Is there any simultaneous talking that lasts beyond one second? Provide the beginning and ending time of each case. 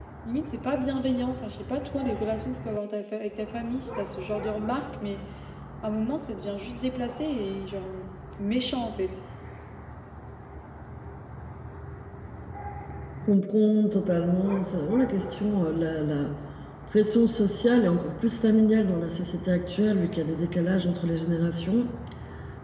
none

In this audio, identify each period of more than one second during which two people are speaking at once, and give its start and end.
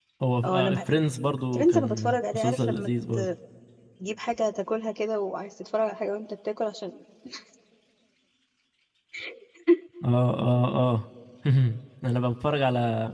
1.5-2.9

